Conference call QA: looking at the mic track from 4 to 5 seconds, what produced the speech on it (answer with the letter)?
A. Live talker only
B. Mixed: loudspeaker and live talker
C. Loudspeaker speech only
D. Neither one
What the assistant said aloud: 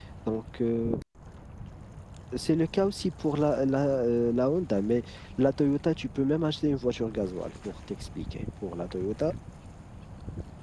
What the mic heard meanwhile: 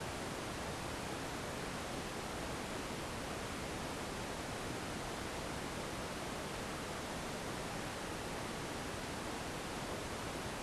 D